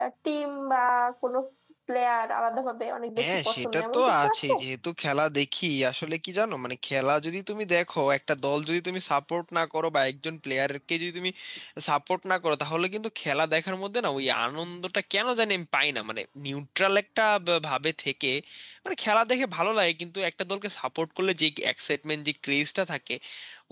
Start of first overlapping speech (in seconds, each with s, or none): 3.2 s